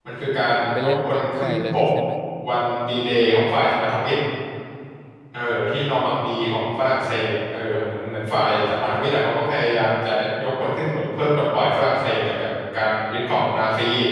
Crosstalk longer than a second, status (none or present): present